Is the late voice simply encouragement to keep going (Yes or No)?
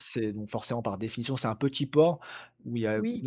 Yes